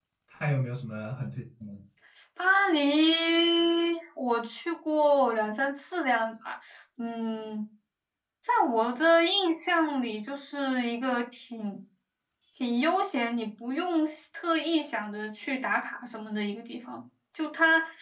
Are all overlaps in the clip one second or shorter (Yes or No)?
Yes